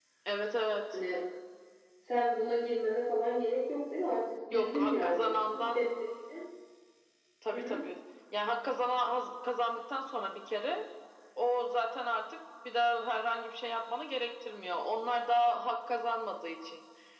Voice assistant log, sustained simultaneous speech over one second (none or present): present